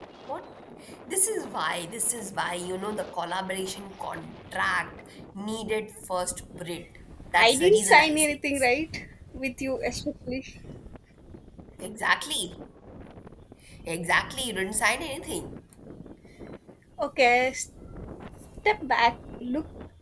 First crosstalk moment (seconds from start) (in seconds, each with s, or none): 7.3 s